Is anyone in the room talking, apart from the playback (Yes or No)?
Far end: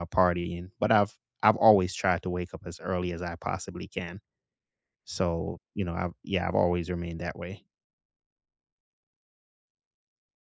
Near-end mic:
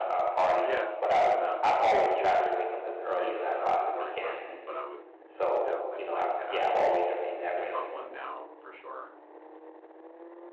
Yes